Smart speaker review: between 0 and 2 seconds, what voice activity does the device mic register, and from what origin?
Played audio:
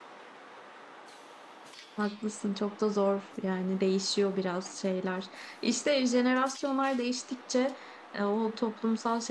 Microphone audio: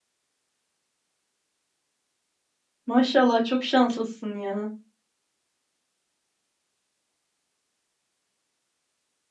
neither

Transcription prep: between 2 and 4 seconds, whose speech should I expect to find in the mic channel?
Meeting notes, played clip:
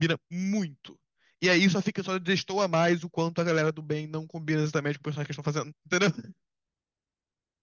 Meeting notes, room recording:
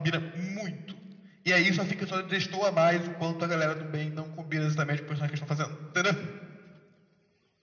echo only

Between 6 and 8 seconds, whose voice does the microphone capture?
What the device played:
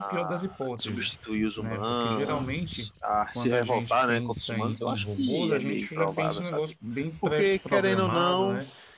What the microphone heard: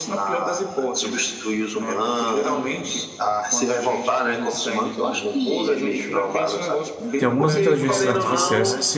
both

